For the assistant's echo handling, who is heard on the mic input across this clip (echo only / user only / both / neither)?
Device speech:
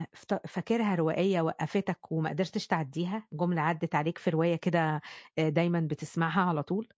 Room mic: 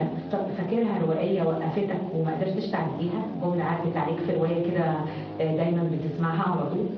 echo only